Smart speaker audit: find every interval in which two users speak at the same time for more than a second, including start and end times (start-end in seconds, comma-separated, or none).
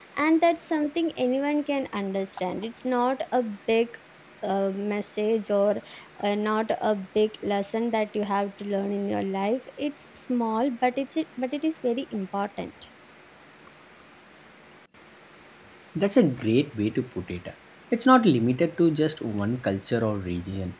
none